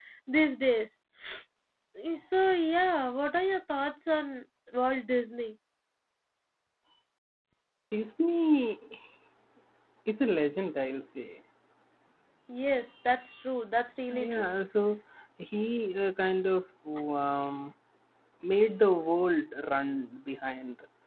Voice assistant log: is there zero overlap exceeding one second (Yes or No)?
Yes